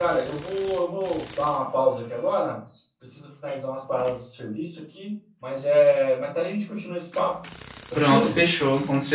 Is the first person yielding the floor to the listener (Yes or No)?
Yes